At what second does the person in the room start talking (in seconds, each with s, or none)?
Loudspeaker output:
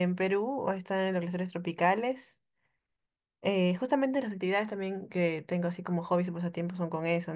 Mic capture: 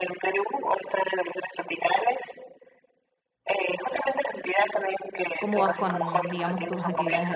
5.4 s